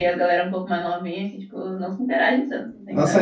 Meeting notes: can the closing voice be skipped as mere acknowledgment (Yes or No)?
No